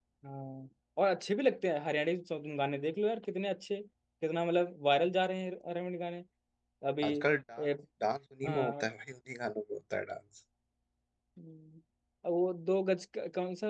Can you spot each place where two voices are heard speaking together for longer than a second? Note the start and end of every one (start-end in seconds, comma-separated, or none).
none